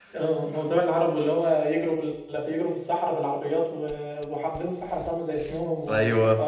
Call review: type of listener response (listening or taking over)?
listening